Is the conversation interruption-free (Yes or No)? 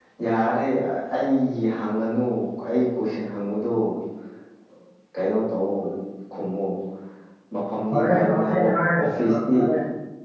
No